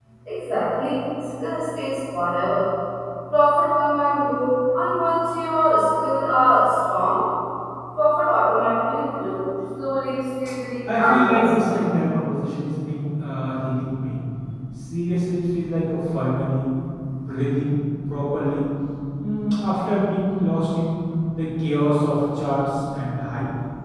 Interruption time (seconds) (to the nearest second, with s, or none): 11 s